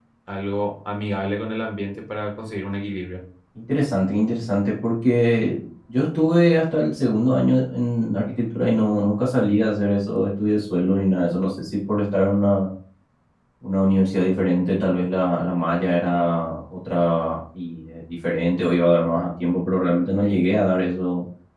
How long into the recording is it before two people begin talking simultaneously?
none

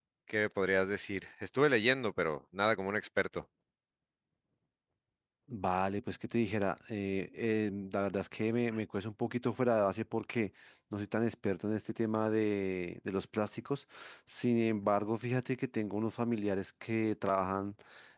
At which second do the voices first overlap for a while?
none

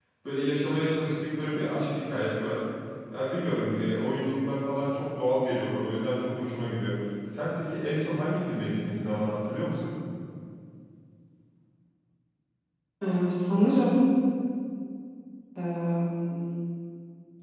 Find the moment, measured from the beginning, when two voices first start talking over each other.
none

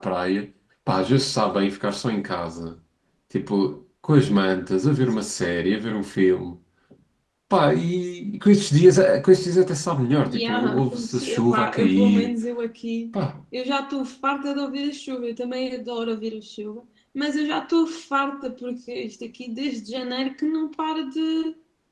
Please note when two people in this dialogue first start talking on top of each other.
10.2 s

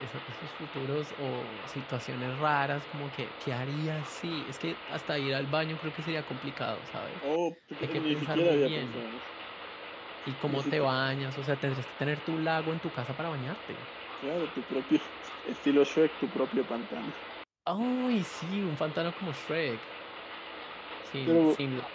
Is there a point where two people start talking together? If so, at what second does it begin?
7.8 s

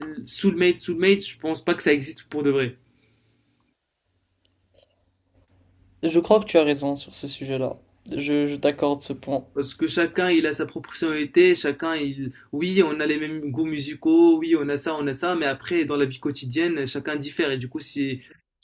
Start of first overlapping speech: none

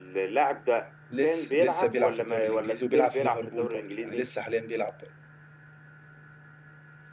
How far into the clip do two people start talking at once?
1.2 s

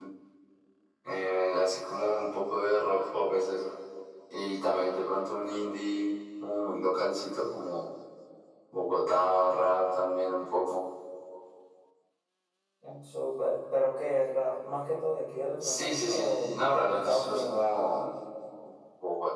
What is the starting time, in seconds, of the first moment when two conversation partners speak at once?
15.6 s

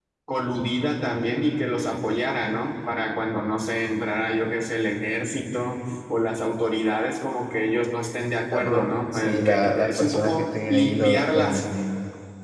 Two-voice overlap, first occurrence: 8.5 s

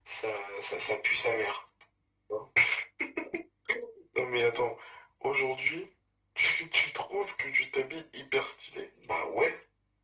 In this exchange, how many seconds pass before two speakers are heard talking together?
none

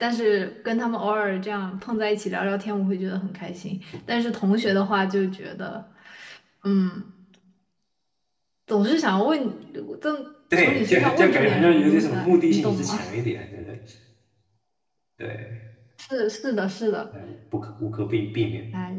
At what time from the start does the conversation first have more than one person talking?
10.6 s

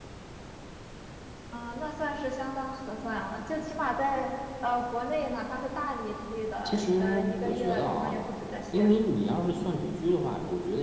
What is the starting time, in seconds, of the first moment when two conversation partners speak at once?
6.7 s

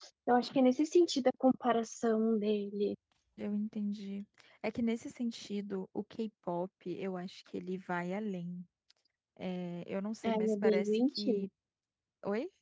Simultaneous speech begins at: 10.2 s

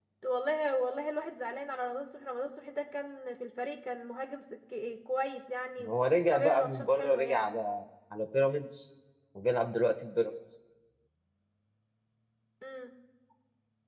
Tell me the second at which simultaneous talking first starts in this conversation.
6.3 s

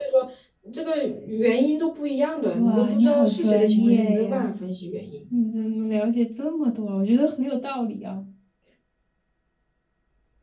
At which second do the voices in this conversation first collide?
2.5 s

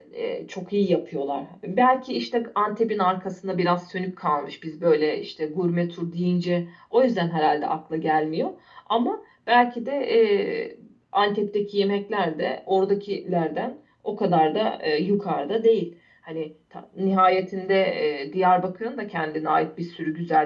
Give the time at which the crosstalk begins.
none

